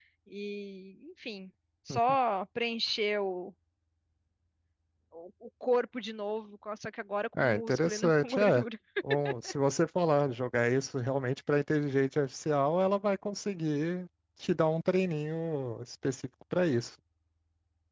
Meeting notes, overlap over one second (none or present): present